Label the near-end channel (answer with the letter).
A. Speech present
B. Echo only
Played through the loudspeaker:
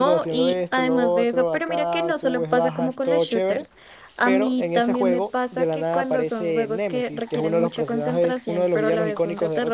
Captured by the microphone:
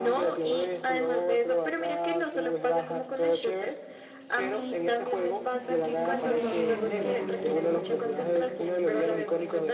B